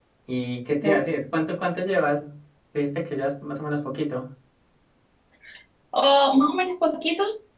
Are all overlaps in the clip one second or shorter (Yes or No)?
Yes